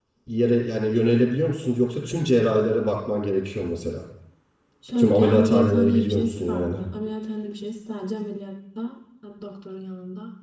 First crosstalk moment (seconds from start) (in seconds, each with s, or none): 5.0 s